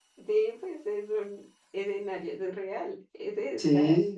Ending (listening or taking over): taking over